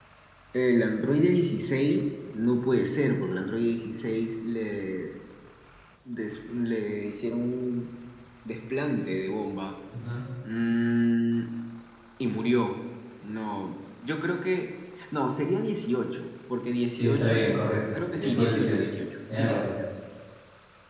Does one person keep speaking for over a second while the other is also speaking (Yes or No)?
Yes